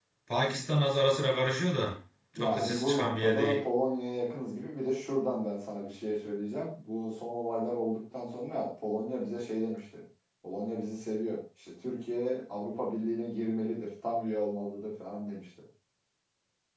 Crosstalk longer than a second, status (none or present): present